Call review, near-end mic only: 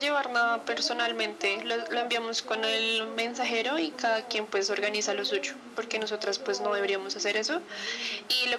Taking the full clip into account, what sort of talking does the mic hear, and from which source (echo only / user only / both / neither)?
both